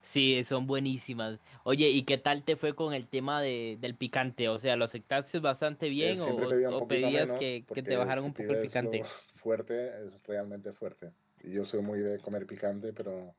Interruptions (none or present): present